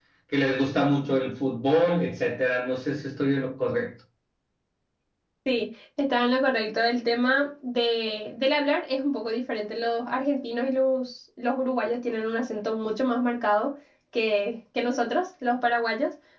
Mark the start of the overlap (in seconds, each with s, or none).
none